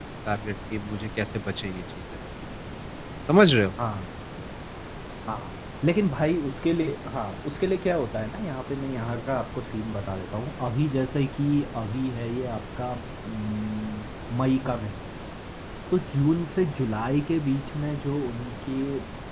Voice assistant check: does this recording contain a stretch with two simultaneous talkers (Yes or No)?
No